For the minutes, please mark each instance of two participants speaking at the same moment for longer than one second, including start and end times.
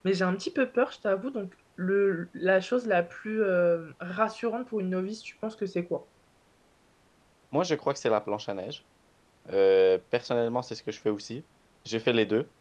none

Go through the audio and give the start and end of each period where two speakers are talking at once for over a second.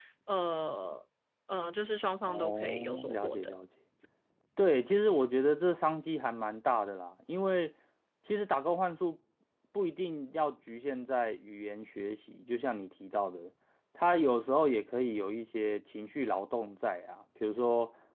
2.3-3.5

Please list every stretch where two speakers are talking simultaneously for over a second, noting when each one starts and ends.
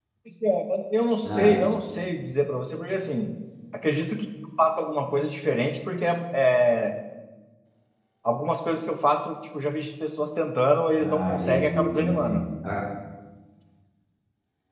11.0-12.4

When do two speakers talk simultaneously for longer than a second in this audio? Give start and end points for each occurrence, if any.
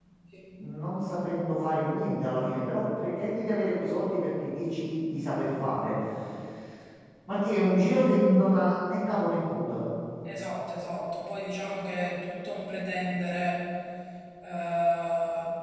none

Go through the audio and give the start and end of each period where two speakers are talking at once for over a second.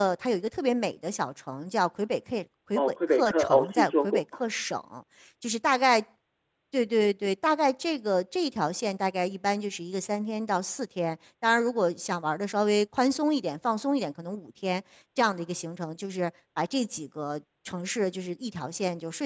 2.8-4.2

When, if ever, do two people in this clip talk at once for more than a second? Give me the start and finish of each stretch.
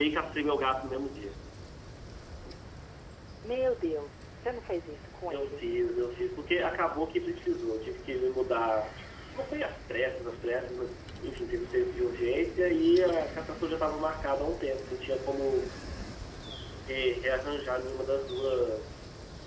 none

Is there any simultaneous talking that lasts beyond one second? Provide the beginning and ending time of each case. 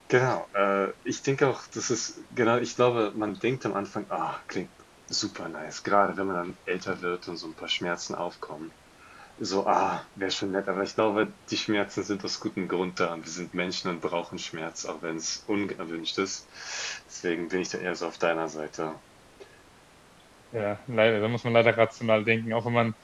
none

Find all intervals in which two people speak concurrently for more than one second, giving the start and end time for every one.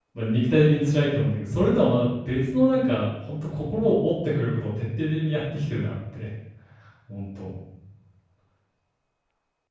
none

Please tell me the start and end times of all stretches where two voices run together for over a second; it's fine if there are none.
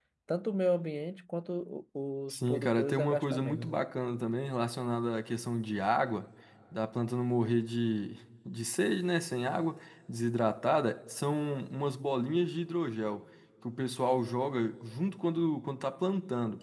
2.3-3.8

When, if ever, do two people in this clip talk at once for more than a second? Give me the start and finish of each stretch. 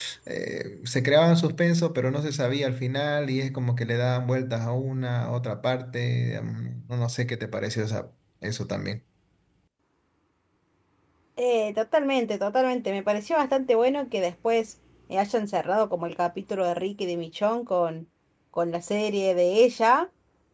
none

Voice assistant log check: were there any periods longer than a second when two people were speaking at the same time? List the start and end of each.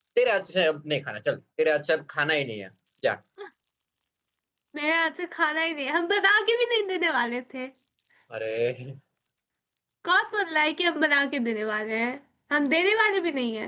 none

